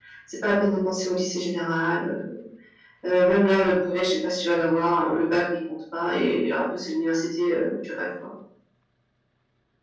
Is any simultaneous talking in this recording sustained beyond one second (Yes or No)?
No